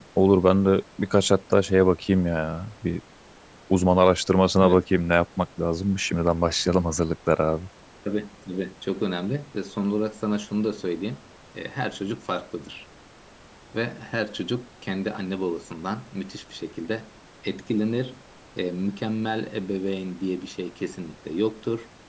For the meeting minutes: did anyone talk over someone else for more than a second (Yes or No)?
No